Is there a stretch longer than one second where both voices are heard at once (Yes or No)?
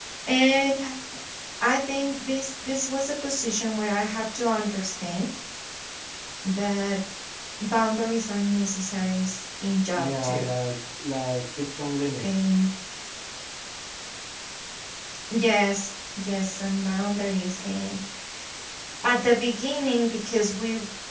No